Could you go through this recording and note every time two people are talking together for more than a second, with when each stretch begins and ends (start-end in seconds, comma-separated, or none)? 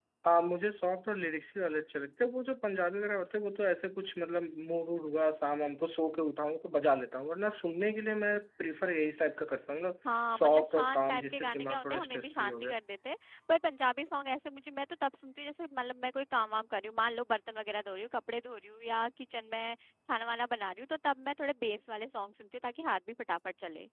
10.4-12.8